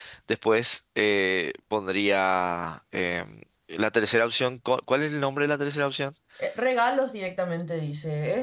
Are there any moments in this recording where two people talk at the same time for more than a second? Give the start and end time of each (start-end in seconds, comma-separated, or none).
none